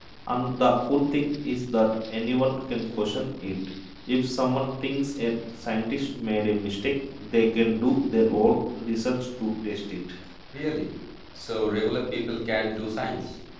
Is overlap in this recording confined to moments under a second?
Yes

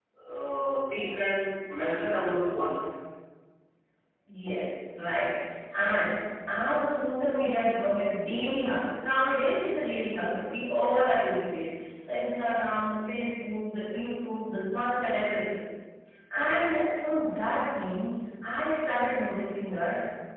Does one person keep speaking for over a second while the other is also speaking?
No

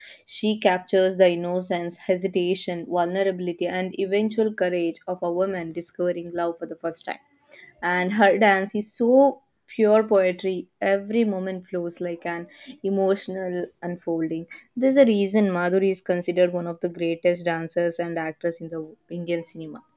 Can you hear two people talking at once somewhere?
No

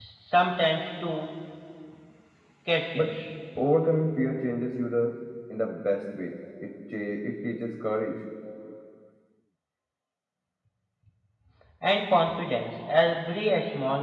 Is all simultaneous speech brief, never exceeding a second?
Yes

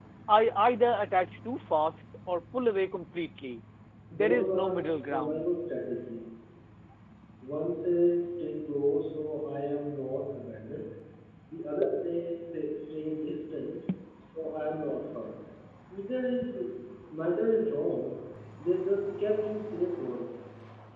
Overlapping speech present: Yes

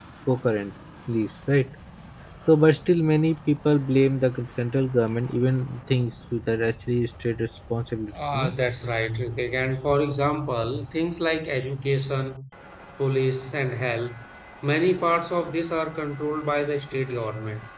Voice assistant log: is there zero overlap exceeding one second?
Yes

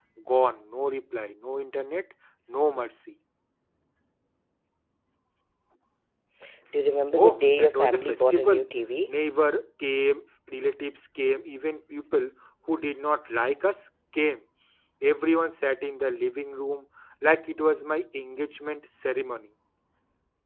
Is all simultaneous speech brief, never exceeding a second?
No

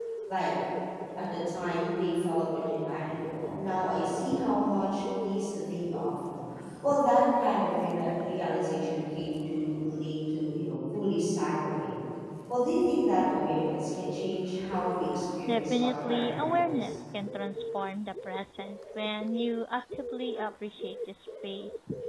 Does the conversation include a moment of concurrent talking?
Yes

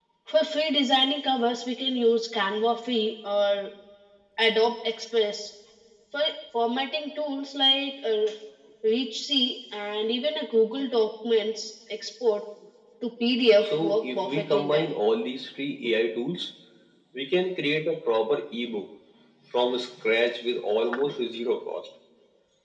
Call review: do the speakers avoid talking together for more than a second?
No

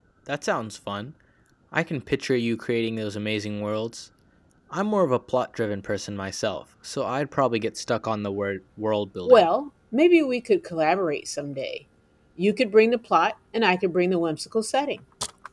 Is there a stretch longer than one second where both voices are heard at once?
No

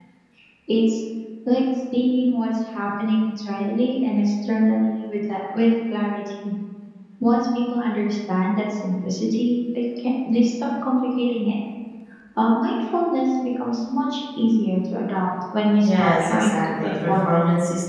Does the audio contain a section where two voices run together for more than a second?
Yes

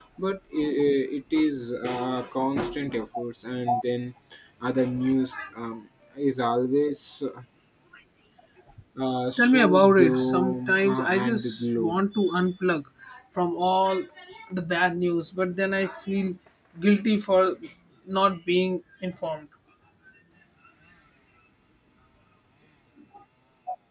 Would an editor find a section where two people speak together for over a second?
Yes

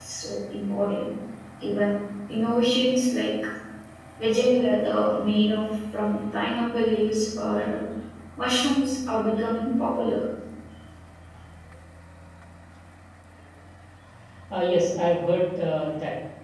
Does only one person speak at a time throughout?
Yes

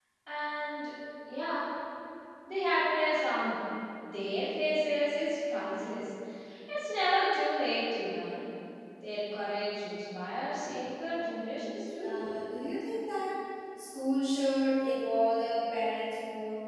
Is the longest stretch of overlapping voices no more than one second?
Yes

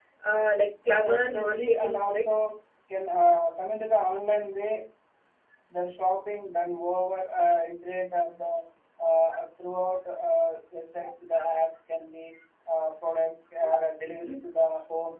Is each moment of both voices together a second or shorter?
No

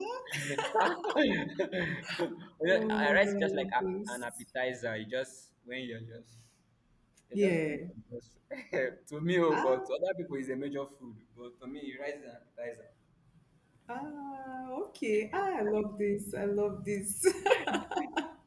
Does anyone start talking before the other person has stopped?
Yes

